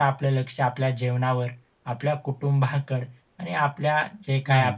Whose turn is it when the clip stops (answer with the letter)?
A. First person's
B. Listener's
A